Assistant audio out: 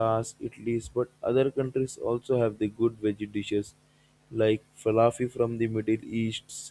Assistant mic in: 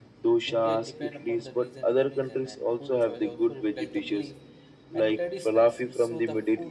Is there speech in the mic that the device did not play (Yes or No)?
Yes